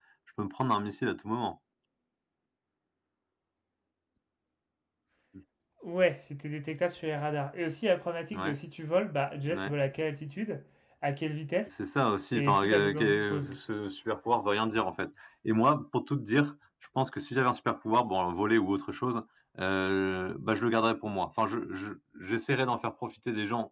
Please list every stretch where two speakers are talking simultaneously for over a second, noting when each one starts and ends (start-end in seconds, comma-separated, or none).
12.3-13.6